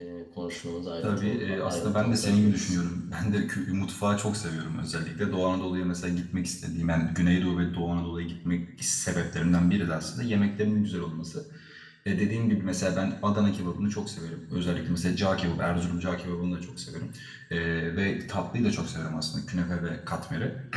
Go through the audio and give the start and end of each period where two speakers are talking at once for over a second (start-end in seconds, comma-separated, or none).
1.0-2.8